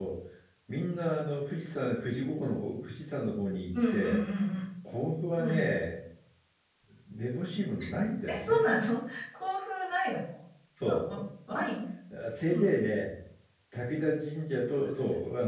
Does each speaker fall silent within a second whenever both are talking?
Yes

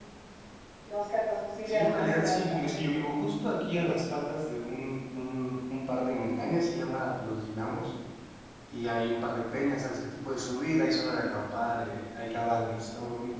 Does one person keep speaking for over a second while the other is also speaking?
Yes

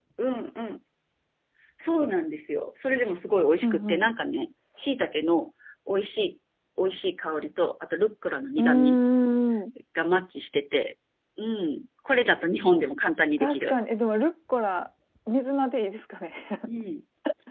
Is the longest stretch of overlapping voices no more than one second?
Yes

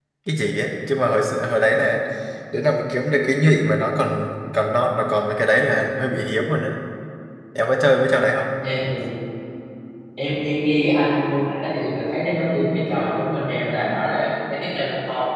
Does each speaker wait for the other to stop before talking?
Yes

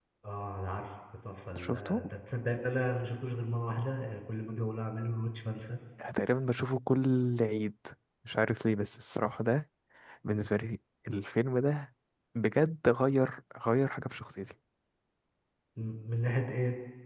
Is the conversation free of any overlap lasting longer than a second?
Yes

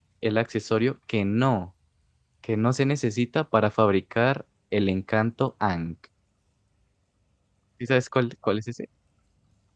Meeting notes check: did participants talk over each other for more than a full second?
No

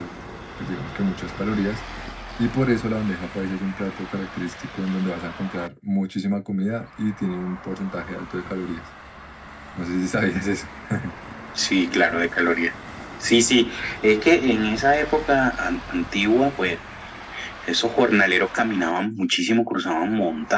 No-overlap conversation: Yes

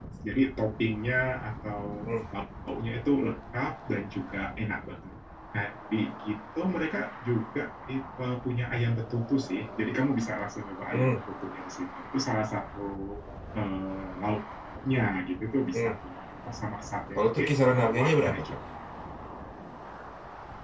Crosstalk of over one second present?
Yes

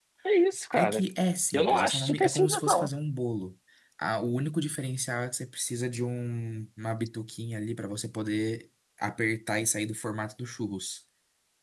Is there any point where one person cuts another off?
Yes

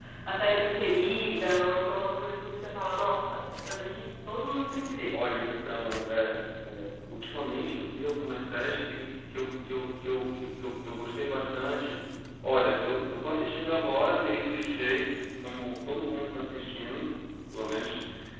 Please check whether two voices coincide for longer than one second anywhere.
No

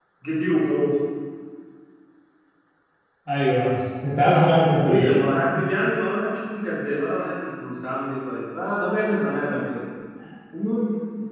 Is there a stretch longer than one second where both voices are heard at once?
No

